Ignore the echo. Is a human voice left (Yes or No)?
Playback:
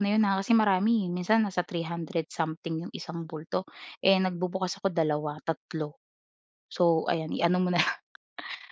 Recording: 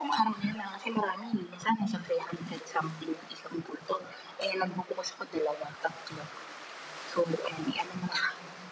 No